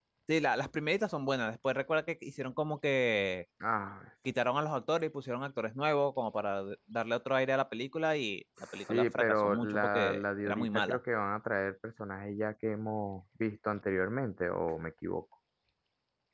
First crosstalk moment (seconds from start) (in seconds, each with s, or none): 8.7 s